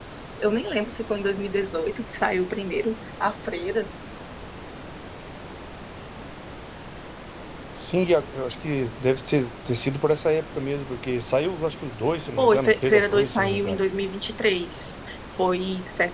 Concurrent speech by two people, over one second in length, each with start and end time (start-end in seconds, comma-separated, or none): 12.4-13.8